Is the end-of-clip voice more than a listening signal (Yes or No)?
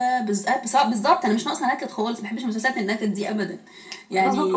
Yes